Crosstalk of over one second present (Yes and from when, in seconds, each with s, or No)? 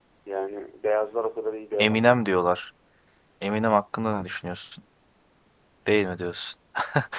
No